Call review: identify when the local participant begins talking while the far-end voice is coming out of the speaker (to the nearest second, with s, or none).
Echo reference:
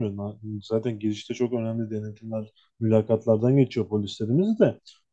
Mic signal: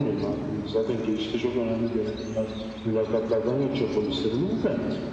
none